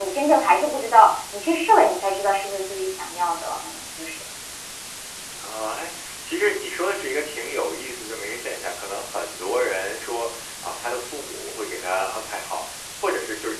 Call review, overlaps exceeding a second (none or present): none